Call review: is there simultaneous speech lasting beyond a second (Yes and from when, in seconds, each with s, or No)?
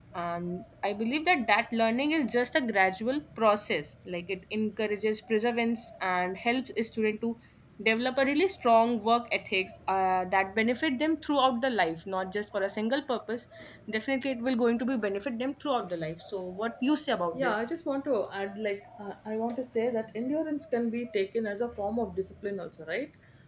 No